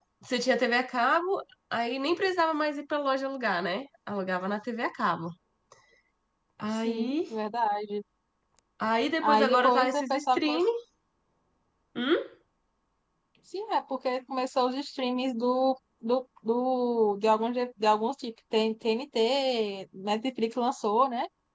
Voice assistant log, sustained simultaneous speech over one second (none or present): present